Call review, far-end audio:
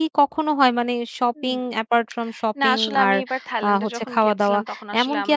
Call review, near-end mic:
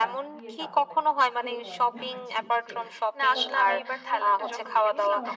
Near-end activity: present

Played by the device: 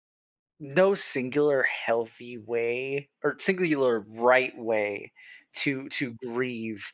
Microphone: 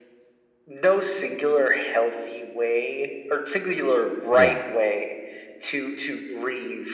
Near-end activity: present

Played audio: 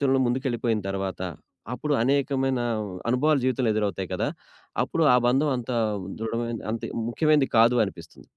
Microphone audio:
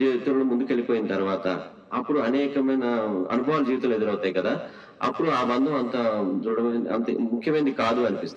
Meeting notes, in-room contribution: none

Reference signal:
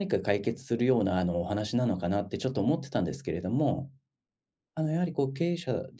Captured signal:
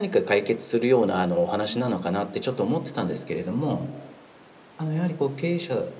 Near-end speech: present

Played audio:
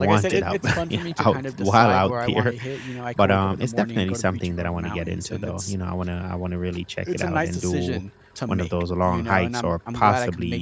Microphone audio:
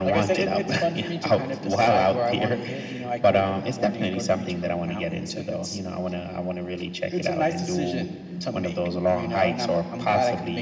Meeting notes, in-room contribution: none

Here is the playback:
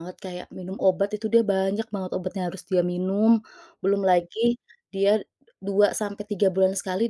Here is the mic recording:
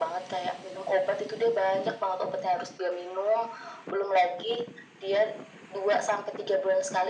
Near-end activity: none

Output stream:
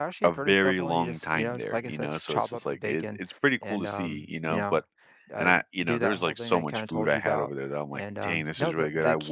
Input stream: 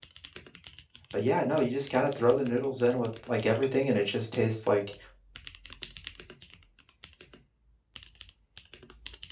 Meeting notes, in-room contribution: present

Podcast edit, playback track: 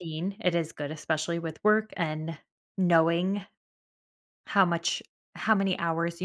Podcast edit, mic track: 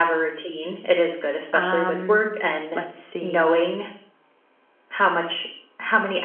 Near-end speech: present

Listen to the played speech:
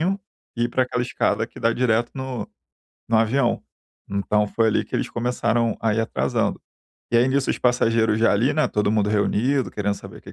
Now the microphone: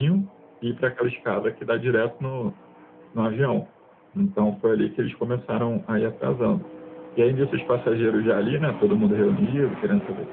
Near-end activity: none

